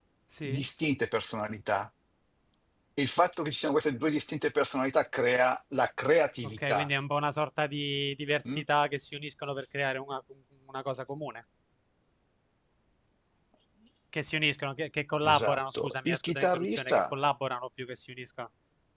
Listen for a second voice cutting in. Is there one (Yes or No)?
Yes